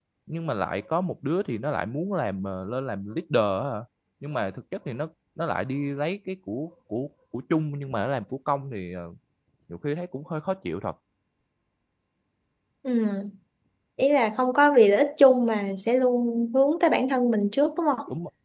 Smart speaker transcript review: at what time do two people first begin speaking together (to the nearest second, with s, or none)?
none